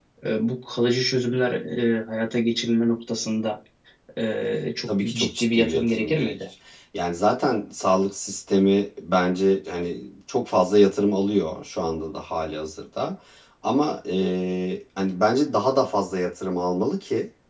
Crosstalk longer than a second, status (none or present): present